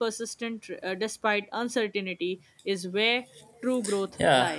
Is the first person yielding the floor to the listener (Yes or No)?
Yes